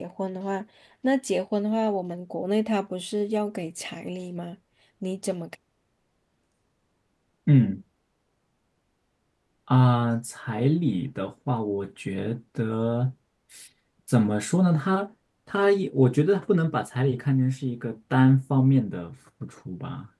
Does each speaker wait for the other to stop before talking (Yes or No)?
Yes